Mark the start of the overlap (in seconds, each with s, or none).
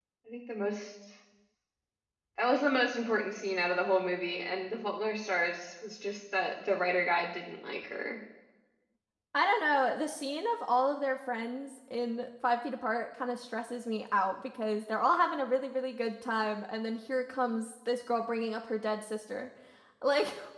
none